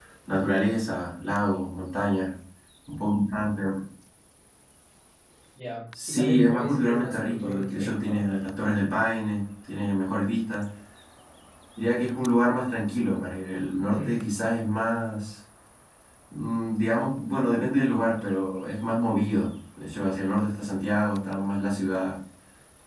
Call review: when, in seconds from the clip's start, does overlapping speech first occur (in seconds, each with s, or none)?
6.1 s